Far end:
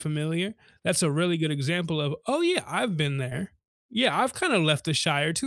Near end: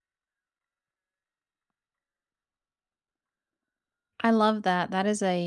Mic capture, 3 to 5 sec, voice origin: user only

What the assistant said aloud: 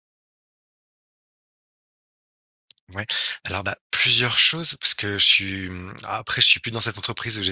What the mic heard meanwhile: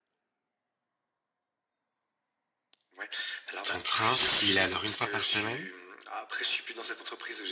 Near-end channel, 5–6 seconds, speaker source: both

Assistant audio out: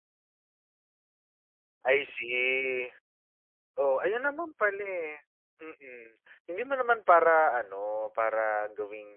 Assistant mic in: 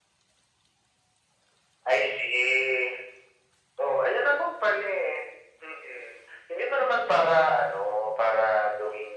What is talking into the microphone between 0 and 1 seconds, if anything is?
neither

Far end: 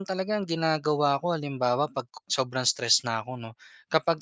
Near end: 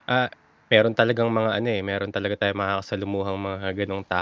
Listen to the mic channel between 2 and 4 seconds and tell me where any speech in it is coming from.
user only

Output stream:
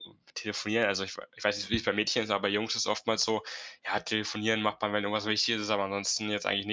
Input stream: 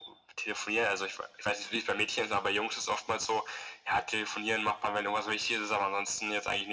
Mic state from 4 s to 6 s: echo only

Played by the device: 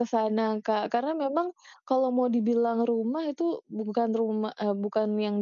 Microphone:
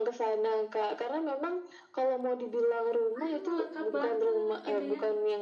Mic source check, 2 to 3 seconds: echo only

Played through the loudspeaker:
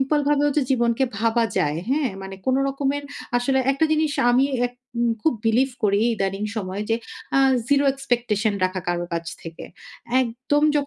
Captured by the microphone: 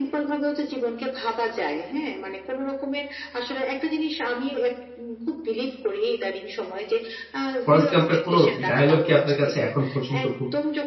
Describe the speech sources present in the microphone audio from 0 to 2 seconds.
echo only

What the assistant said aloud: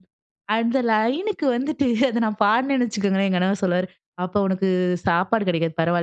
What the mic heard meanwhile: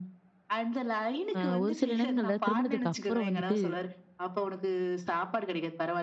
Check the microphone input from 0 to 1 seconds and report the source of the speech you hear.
echo only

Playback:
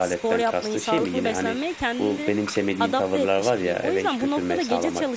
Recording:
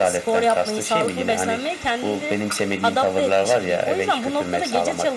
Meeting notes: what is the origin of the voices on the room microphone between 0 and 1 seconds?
echo only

